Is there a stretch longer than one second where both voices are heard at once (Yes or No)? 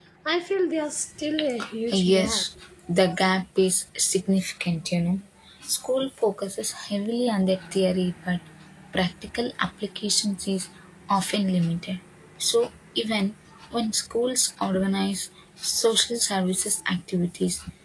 No